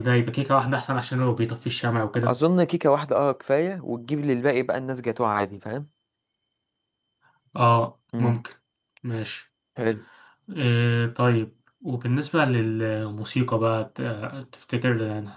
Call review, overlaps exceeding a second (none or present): none